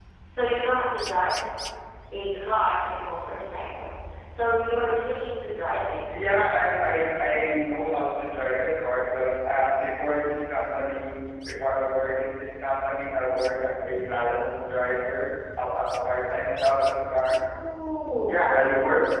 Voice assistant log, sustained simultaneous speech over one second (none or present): none